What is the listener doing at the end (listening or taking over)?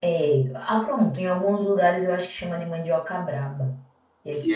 taking over